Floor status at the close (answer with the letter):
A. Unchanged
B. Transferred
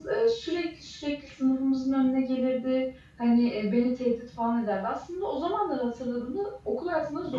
B